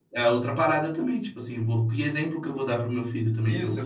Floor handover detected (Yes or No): Yes